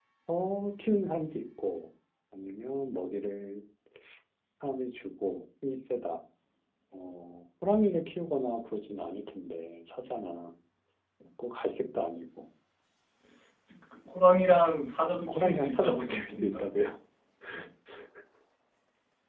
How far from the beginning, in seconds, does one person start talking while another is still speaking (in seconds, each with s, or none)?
15.3 s